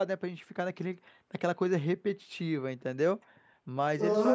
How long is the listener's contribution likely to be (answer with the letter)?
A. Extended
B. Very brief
B